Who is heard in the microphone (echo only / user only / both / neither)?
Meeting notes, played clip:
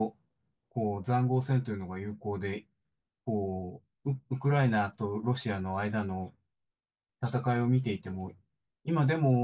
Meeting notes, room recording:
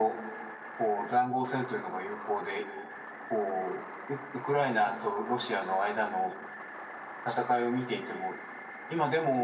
echo only